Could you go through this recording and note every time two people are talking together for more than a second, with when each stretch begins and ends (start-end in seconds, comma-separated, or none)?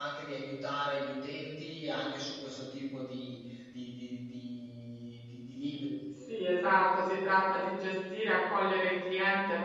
none